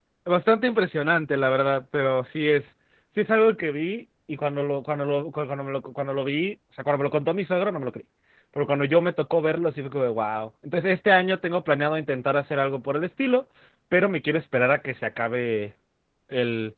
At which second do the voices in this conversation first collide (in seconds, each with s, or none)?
none